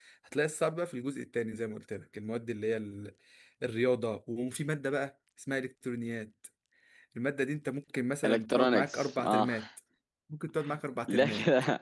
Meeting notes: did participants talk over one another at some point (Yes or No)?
Yes